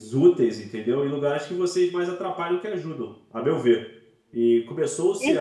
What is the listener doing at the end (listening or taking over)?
taking over